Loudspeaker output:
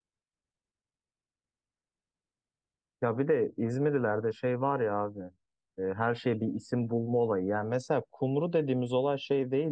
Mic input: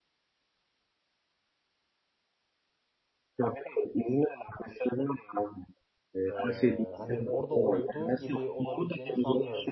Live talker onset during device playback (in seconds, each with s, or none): 6.3 s